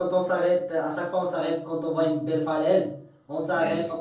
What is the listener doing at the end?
listening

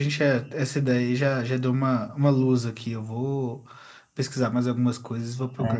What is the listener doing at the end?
taking over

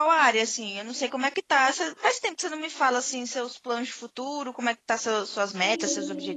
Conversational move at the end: taking over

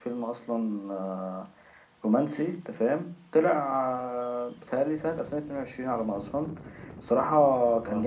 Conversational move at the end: listening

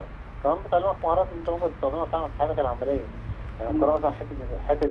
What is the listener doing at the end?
listening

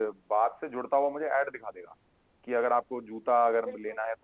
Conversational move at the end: listening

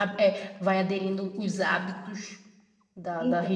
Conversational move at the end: listening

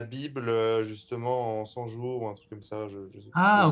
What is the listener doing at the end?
taking over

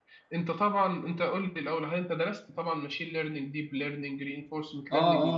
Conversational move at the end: taking over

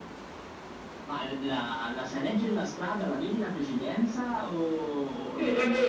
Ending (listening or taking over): taking over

